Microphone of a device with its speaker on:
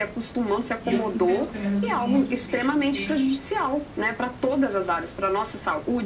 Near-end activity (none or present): present